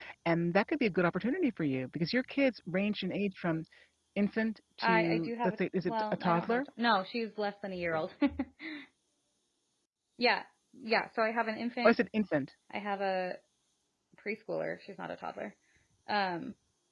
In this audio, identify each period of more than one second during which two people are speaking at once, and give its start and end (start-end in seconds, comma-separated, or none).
4.8-6.6